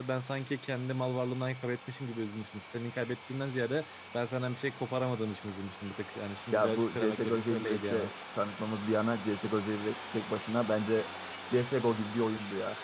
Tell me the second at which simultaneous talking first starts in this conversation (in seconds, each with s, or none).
6.5 s